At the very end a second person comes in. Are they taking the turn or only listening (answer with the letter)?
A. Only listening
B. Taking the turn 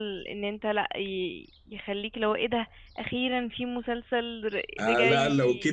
B